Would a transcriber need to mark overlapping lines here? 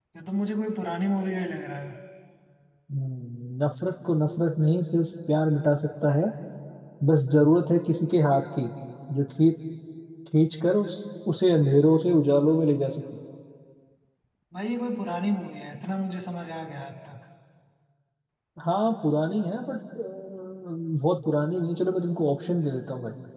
No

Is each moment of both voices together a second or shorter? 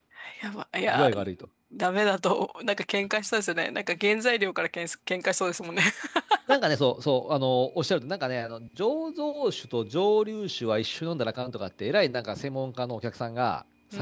Yes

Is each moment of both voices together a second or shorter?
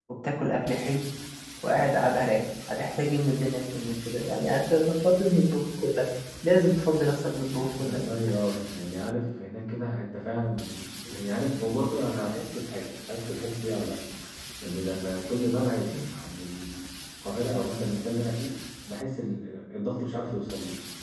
Yes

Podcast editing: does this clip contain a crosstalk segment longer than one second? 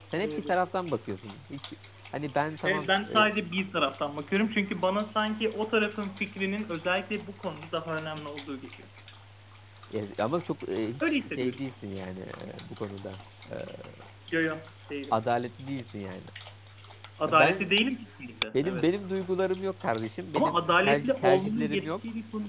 Yes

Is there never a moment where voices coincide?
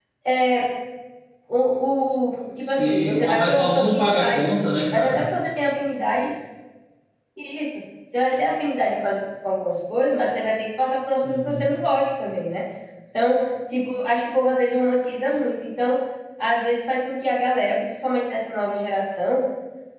No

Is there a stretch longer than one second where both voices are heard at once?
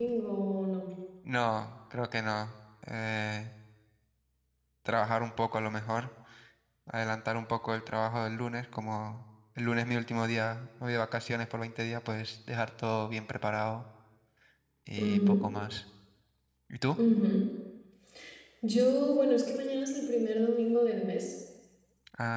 No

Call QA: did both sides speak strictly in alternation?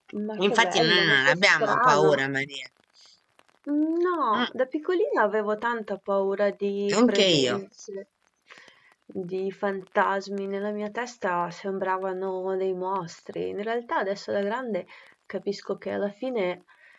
No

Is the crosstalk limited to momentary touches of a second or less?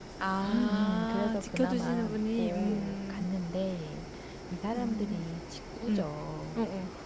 No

